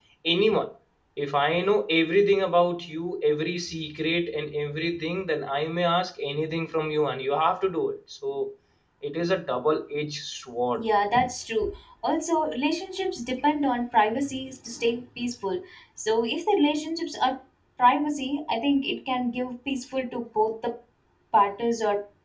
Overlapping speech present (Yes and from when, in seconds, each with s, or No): No